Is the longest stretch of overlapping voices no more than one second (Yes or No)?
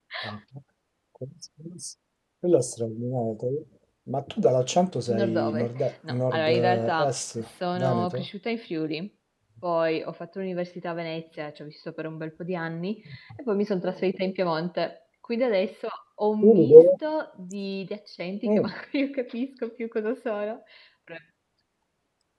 No